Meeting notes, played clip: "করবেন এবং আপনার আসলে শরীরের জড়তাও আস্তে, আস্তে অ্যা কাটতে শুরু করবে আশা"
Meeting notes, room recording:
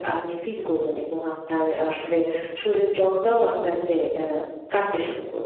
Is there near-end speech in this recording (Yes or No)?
No